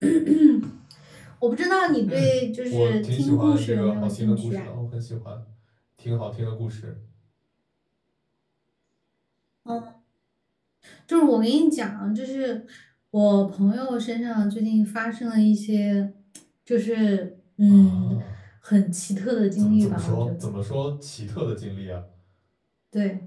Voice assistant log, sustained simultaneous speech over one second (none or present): present